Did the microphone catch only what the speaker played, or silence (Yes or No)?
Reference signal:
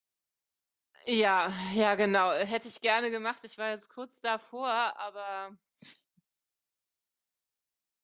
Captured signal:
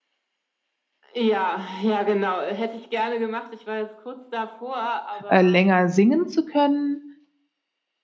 No